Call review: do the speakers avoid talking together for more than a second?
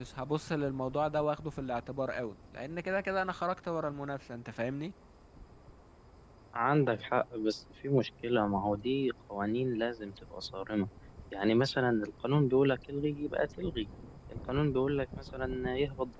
Yes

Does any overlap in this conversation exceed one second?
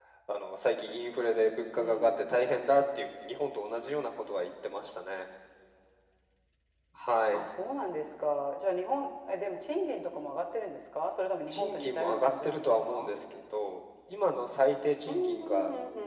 Yes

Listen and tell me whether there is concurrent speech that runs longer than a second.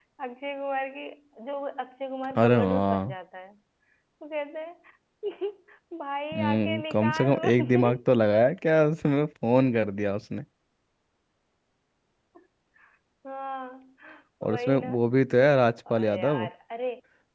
Yes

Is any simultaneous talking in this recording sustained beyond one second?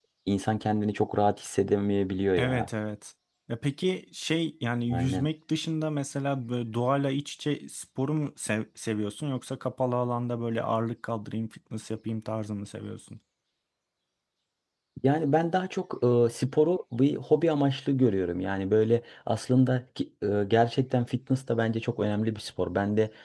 No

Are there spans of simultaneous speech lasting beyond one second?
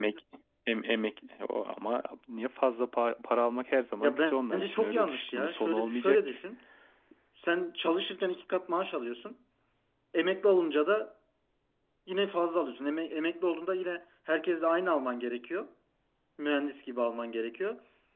Yes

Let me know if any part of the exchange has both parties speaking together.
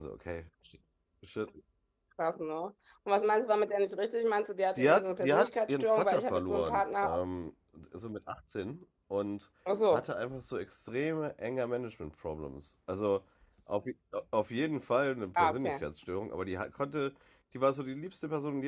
Yes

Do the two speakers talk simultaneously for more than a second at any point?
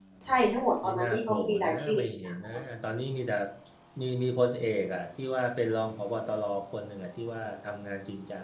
Yes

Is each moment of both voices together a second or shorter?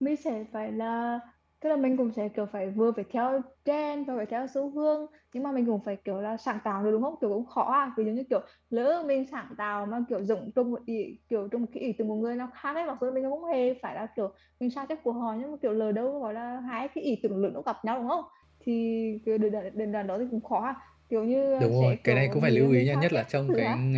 No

